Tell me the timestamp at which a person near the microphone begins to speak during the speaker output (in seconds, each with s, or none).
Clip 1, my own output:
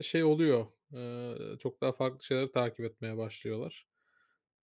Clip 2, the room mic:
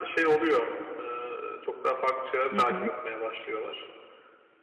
2.5 s